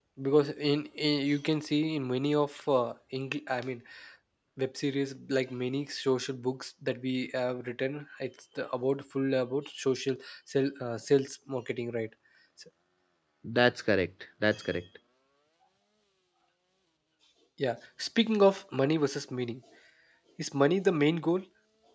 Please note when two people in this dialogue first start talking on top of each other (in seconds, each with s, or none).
none